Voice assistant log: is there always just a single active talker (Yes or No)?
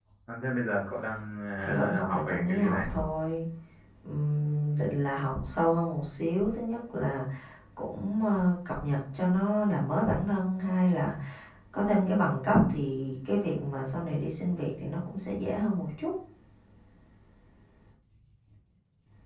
No